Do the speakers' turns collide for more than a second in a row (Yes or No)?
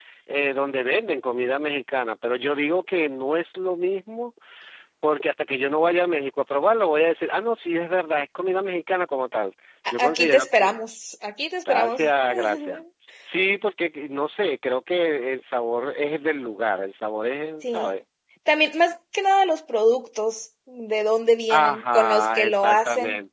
Yes